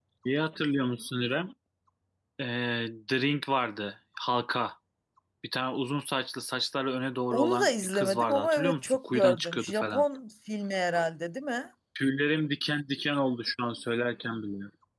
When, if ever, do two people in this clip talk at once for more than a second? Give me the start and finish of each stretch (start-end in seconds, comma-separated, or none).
7.3-10.0